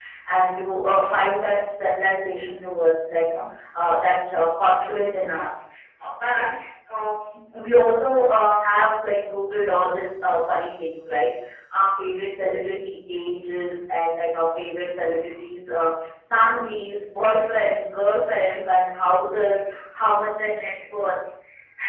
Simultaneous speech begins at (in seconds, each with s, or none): none